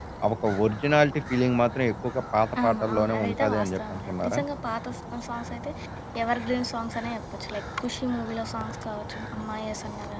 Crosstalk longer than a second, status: present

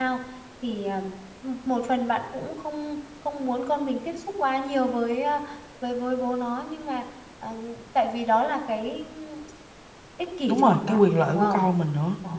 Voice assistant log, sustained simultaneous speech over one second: present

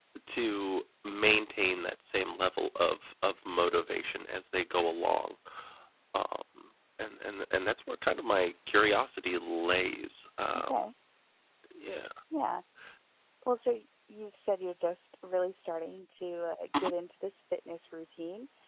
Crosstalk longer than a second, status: none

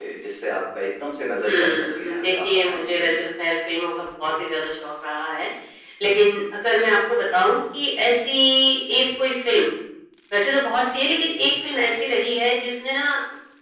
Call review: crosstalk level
present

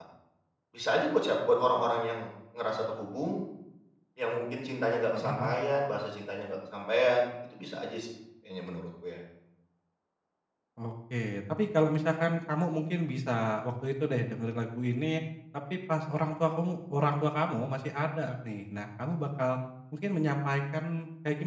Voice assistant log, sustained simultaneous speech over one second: none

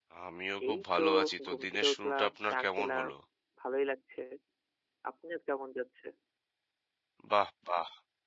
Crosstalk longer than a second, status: present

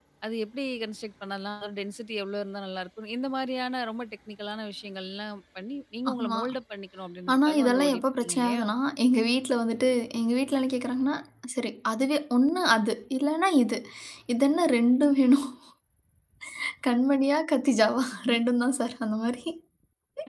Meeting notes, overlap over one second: present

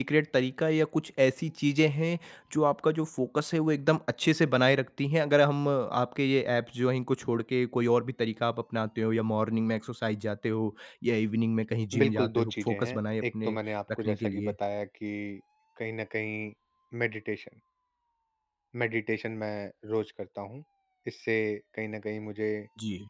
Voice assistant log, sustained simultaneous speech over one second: present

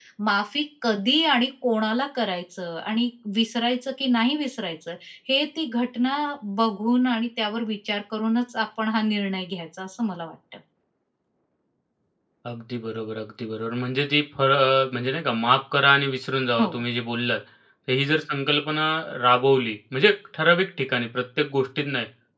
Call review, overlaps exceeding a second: none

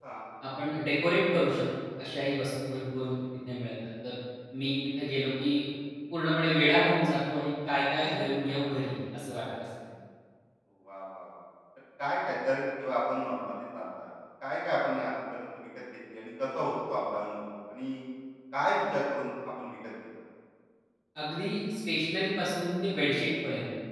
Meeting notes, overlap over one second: none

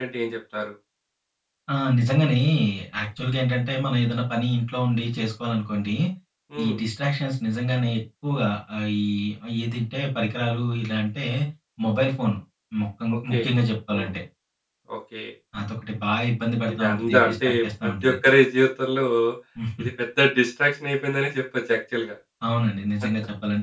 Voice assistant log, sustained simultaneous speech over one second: present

